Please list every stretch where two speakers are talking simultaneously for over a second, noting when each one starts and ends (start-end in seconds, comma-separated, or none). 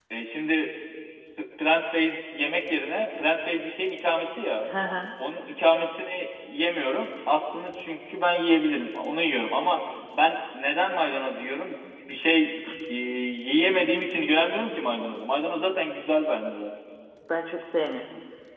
none